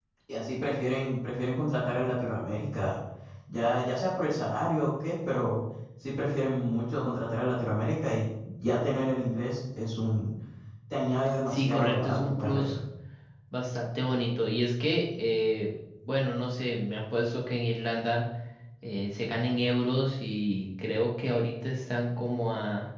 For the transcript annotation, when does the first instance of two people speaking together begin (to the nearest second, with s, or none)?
11 s